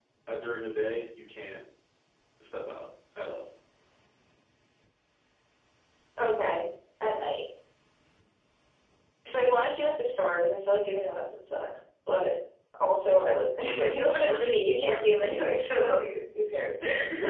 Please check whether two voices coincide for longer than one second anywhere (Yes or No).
Yes